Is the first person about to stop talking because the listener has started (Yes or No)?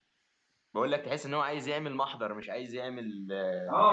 Yes